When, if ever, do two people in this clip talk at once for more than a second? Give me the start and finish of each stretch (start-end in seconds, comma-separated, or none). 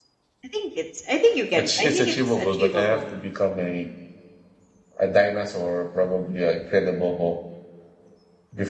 1.5-3.0